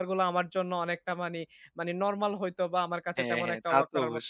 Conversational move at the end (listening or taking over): taking over